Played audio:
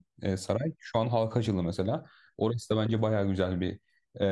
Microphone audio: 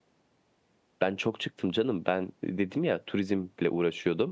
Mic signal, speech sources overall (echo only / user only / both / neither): user only